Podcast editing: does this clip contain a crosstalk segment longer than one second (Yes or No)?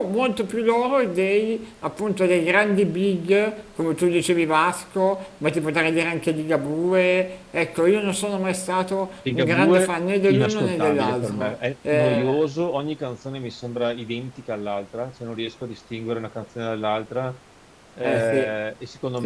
Yes